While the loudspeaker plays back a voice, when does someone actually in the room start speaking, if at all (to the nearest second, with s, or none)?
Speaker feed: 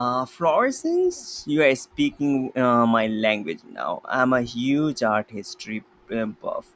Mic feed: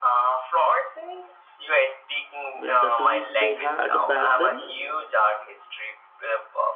3 s